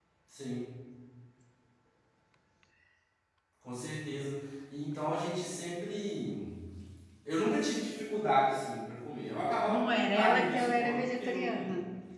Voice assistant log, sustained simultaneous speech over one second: present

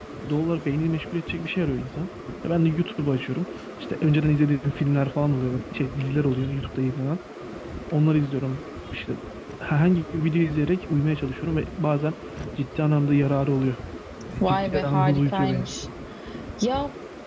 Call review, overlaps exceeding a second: present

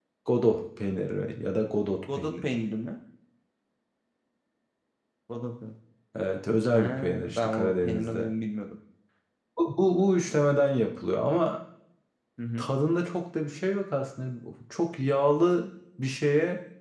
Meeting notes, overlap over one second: present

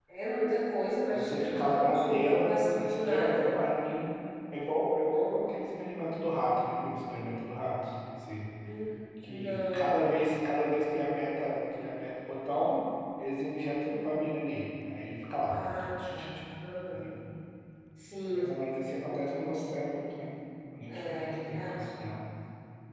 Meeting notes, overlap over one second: present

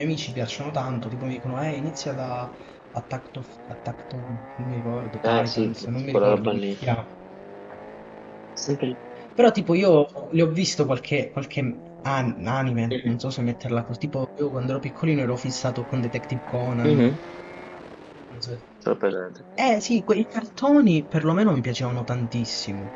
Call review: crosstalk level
present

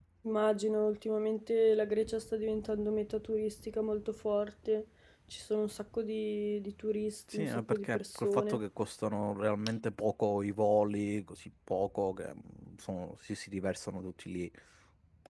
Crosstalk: present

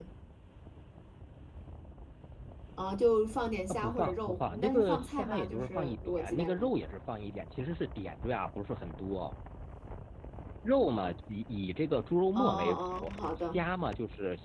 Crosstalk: present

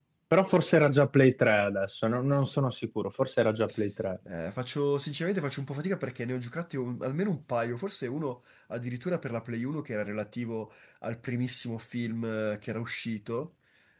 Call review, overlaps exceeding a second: none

